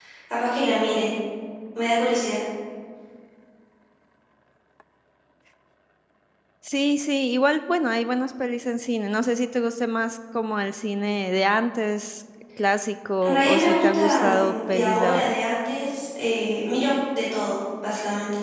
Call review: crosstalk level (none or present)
present